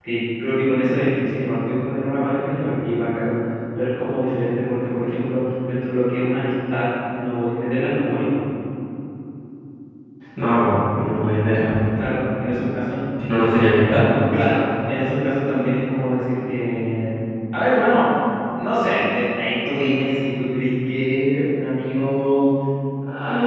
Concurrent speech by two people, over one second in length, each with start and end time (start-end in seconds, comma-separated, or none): none